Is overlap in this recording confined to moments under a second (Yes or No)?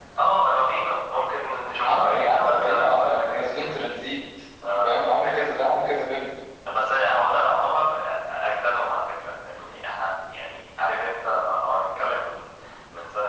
No